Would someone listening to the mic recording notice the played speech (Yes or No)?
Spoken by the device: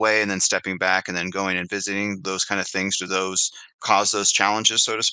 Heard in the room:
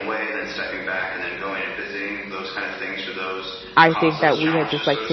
Yes